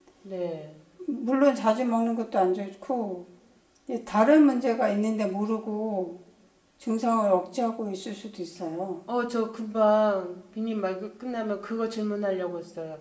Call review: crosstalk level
none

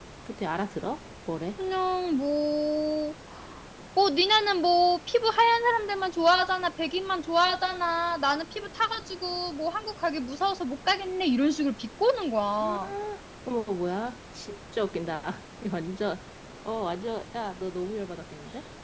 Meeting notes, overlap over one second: none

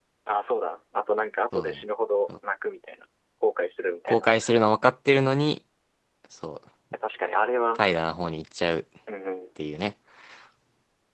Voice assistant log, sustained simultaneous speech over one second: none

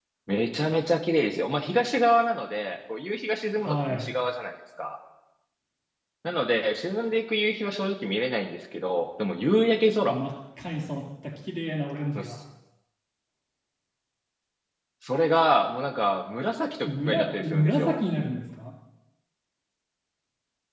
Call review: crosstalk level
present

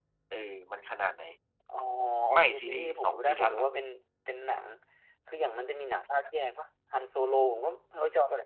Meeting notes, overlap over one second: present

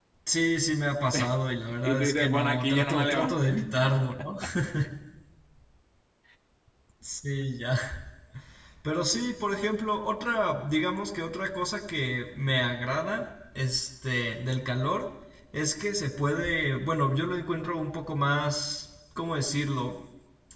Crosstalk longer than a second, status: present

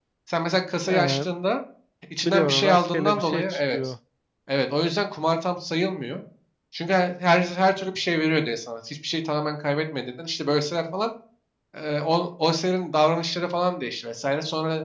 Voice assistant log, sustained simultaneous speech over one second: present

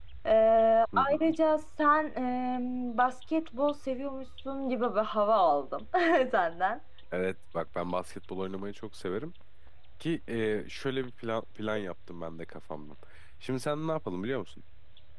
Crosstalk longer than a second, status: none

